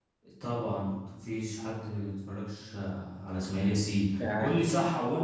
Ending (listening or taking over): listening